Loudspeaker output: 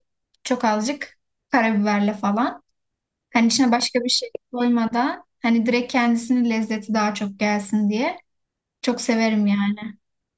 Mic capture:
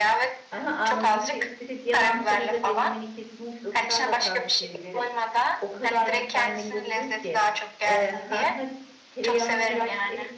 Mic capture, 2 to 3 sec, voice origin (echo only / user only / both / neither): both